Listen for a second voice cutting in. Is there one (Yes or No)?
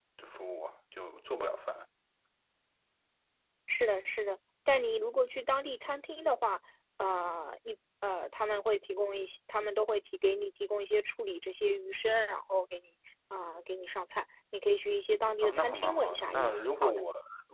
Yes